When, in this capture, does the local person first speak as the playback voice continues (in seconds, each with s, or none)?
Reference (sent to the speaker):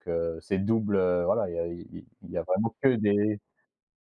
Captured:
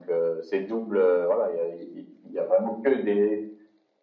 none